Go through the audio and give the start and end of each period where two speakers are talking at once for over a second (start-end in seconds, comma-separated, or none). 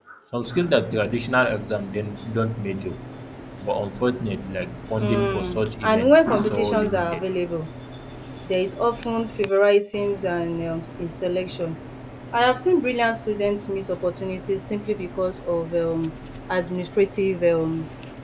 5.0-7.2